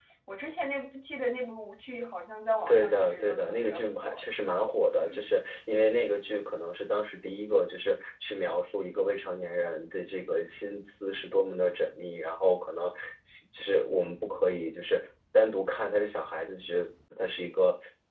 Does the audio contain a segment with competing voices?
Yes, from 2.7 s

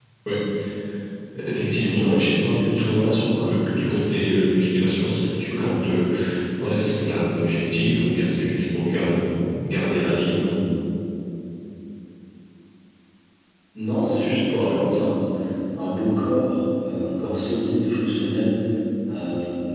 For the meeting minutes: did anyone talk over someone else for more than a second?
Yes, from 1.8 s

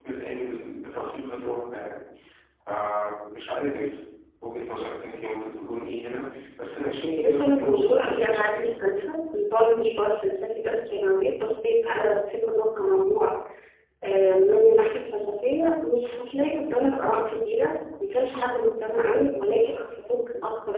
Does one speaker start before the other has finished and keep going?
Yes, from 7.2 s

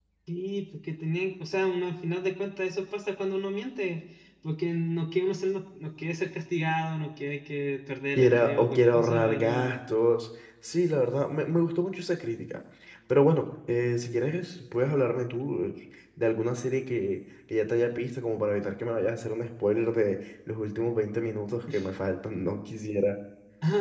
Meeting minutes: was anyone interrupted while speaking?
Yes, from 8.2 s

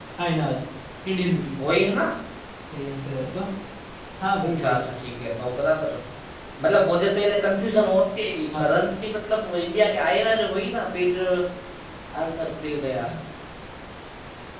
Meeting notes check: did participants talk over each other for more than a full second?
No

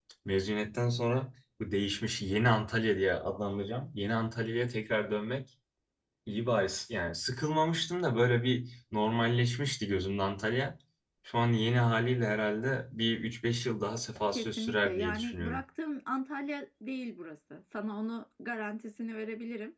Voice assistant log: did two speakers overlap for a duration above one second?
Yes, from 14.2 s

